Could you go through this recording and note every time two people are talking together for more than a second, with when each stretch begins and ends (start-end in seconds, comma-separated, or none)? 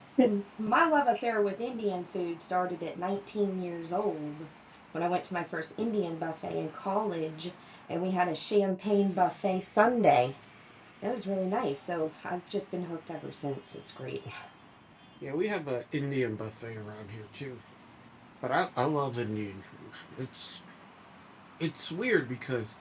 none